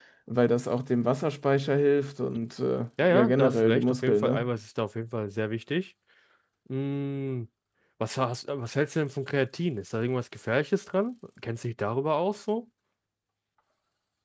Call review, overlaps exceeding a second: present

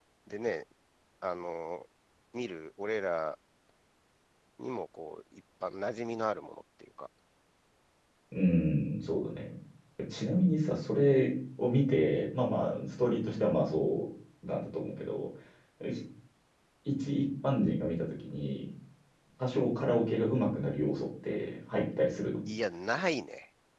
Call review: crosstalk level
none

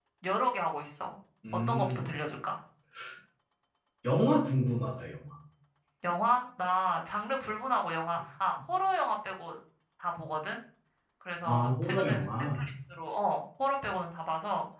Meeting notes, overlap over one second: present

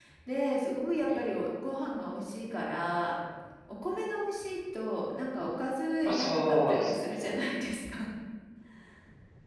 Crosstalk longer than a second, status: present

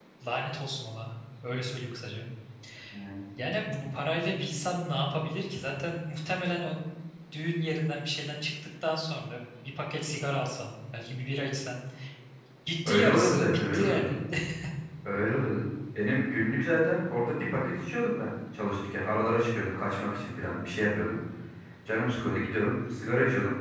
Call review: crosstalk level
present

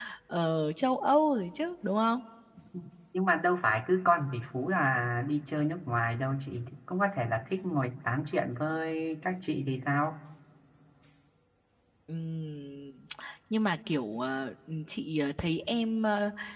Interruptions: none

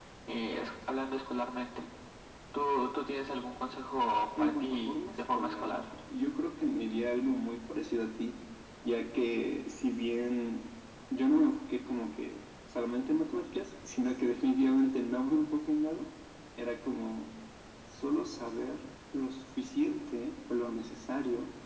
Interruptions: present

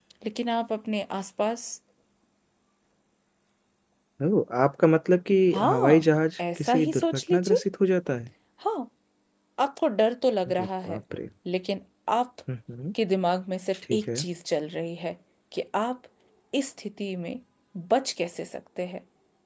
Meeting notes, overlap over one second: present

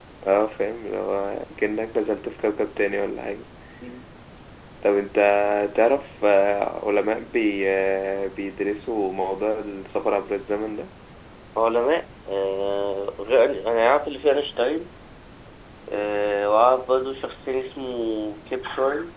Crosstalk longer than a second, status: none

